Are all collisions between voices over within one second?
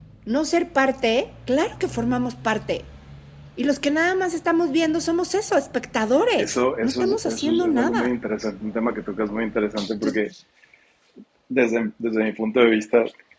No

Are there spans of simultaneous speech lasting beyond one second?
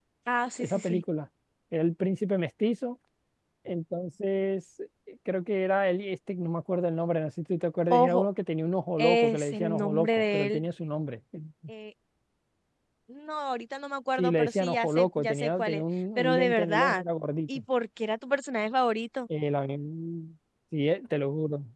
Yes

